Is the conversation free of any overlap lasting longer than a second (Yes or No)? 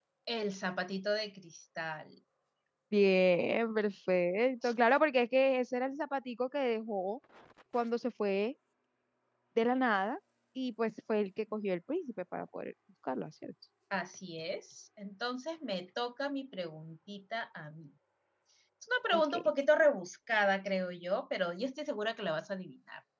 Yes